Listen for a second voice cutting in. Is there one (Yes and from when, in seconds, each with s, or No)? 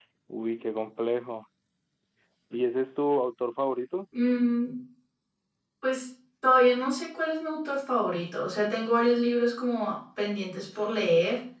No